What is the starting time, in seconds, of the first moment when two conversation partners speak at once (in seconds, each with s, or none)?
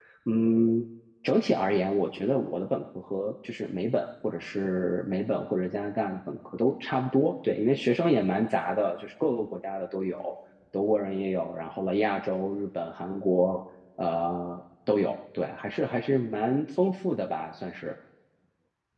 none